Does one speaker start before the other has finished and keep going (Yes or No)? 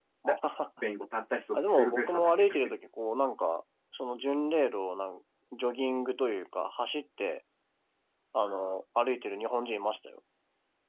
Yes